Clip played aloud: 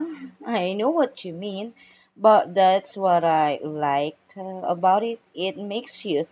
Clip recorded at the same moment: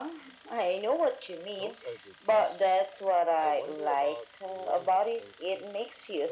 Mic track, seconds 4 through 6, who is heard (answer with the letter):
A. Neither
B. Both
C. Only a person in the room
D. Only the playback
B